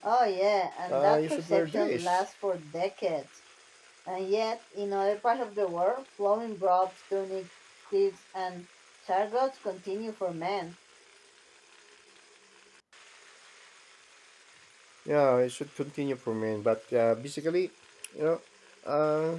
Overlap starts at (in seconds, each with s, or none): 0.9 s